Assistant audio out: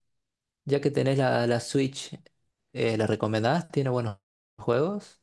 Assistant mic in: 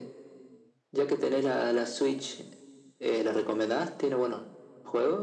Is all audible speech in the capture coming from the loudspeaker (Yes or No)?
Yes